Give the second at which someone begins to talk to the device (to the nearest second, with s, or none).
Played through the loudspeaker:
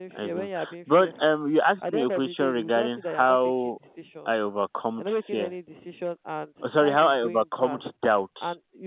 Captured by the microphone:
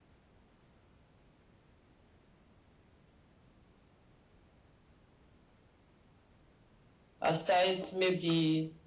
7 s